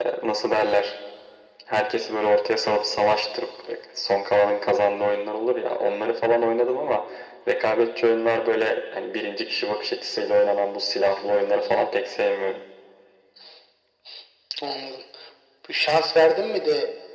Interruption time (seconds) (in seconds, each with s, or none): none